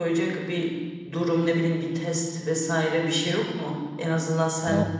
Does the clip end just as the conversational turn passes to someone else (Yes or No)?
No